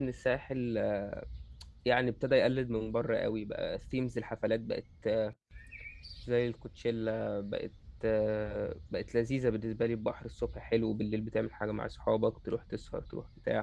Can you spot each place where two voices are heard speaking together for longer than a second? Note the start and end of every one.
none

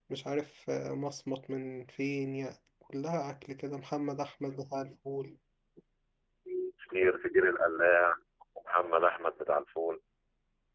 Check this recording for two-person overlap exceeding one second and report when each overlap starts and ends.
none

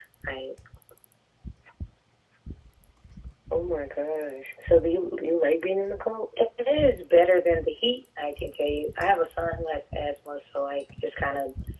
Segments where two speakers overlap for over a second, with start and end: none

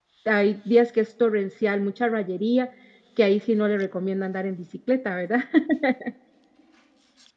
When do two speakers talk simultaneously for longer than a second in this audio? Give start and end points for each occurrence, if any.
none

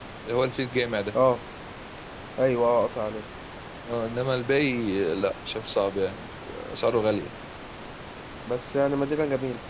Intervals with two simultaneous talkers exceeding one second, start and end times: none

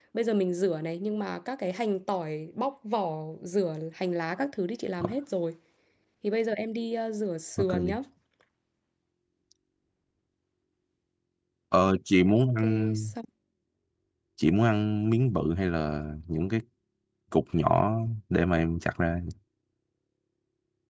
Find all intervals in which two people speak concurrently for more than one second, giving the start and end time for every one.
none

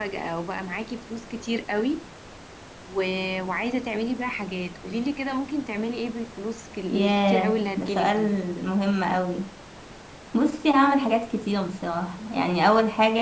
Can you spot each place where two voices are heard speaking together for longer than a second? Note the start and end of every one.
6.9-8.2

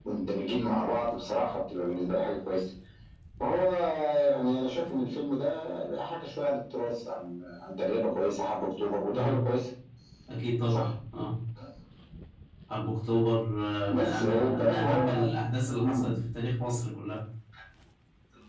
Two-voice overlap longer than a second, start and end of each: 13.9-15.2

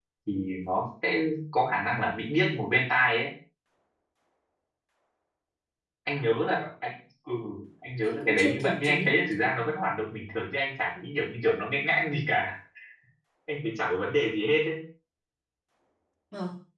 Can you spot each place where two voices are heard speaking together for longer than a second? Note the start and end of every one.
8.0-9.5

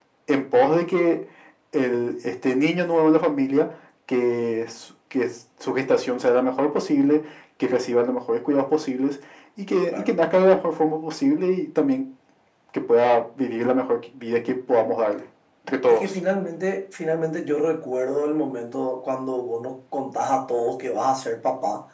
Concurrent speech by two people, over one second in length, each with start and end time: none

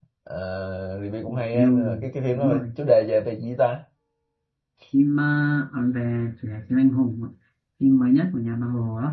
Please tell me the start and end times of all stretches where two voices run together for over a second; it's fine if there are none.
1.3-2.6

